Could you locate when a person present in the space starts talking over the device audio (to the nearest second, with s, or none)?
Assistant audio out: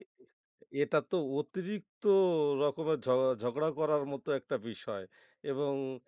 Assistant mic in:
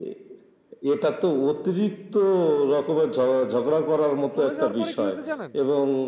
4 s